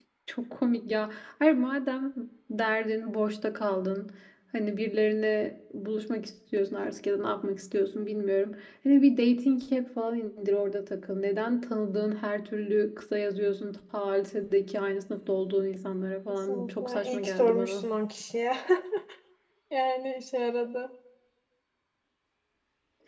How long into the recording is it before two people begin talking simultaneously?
16.5 s

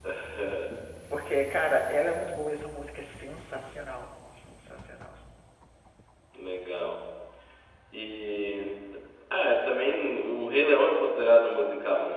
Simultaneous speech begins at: none

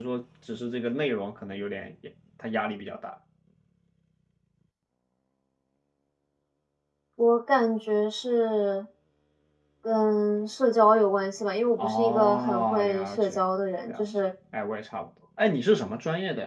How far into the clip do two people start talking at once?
11.8 s

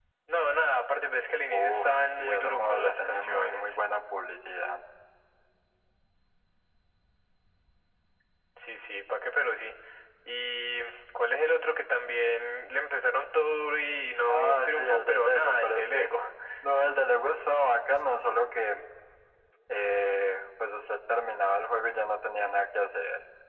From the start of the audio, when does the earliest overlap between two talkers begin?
1.5 s

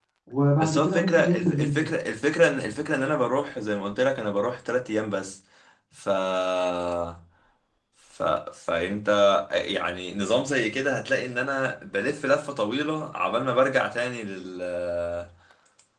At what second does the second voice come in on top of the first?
0.6 s

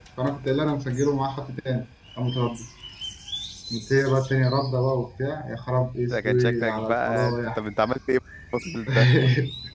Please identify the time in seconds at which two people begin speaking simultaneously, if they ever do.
6.1 s

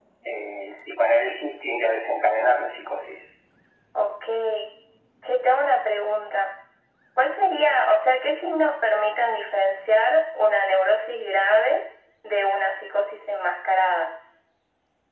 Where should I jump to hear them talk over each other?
none

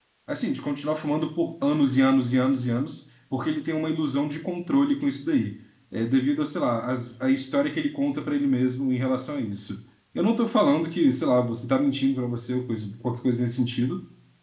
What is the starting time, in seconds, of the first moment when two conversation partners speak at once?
none

